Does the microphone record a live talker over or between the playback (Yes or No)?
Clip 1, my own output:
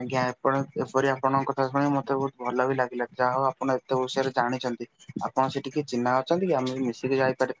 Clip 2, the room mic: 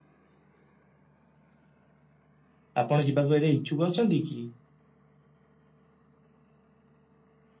Yes